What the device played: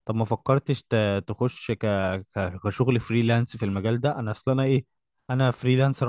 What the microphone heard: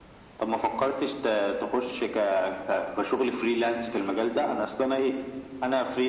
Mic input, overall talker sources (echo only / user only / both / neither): echo only